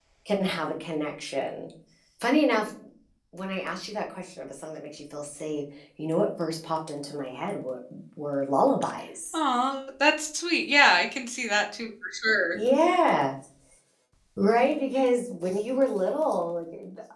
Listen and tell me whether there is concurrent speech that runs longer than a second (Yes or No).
No